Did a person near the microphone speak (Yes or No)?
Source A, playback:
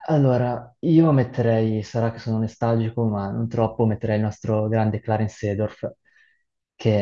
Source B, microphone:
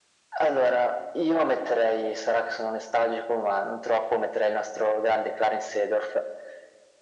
No